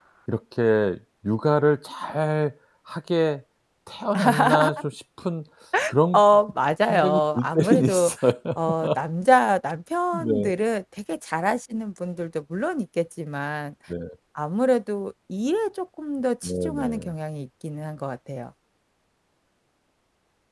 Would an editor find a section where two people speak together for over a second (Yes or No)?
Yes